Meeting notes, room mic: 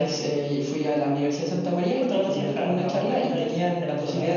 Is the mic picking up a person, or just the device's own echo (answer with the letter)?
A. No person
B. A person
A